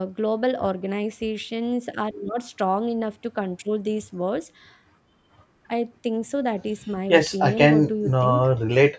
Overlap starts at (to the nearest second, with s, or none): 7 s